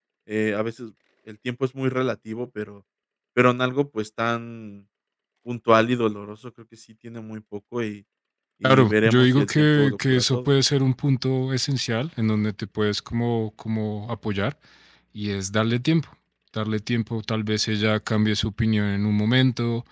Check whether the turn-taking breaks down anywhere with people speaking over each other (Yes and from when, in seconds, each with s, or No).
Yes, from 8.6 s